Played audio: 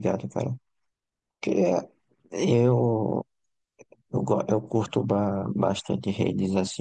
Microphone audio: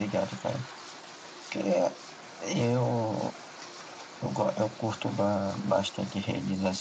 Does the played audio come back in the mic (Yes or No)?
Yes